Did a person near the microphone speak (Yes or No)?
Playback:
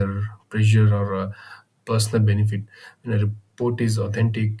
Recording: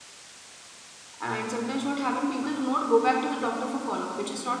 Yes